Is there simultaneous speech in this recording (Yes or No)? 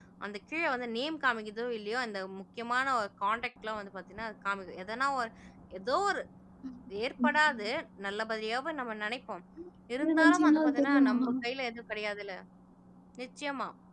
Yes